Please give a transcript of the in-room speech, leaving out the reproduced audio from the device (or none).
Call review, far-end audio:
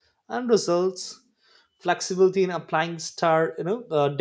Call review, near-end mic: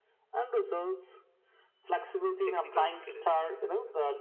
technical skills.